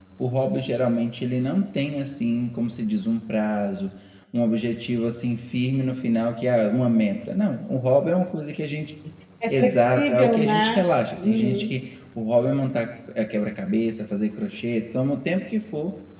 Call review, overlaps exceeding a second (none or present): present